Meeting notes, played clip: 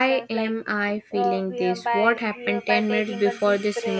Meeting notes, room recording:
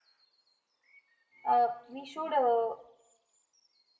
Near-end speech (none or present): present